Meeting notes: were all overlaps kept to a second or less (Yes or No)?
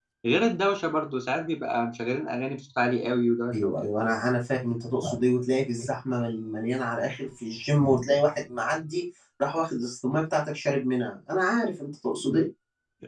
Yes